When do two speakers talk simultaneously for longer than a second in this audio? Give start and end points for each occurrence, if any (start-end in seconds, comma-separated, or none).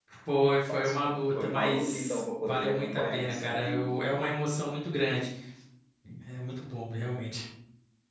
0.7-3.9